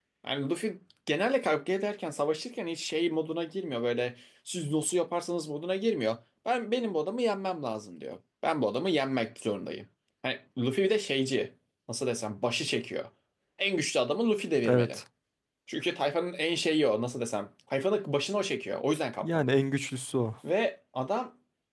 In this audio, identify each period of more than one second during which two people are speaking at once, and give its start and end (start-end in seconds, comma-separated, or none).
none